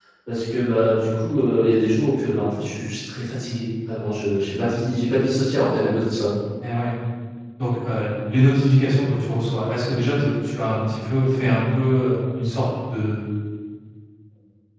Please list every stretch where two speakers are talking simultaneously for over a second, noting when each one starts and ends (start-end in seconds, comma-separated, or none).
none